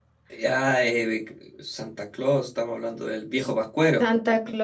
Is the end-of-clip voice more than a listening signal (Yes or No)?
Yes